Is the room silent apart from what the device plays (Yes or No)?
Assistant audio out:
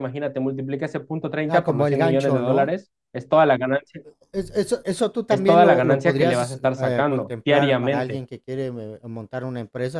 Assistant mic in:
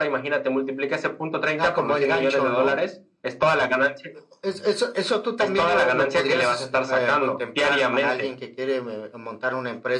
Yes